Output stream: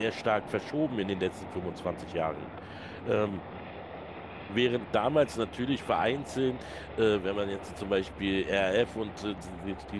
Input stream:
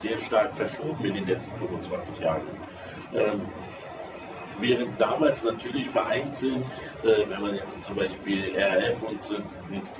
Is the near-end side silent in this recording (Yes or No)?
No